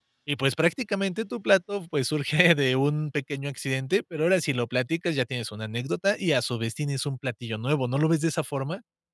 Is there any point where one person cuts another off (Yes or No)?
No